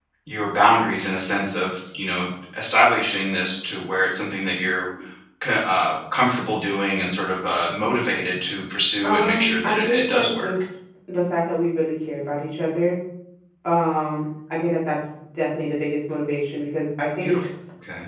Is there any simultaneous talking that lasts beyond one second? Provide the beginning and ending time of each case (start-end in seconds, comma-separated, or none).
9.0-10.5